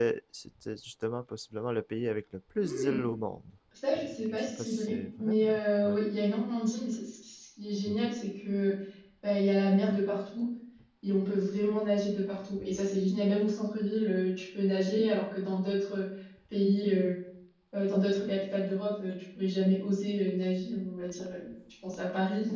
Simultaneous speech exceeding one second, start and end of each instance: 4.0-5.5

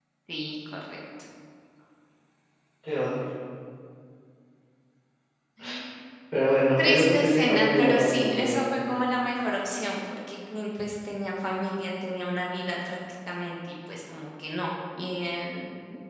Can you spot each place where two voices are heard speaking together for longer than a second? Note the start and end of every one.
6.8-8.6

